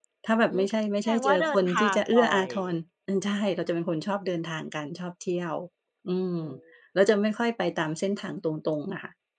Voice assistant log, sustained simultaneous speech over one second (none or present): present